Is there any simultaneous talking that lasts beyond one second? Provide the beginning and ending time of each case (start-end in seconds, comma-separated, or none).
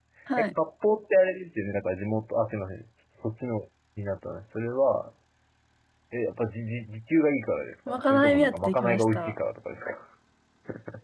7.9-9.3